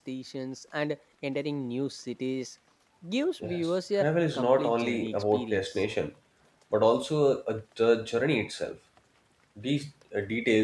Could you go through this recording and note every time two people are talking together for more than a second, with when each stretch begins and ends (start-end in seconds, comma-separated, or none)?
3.4-5.8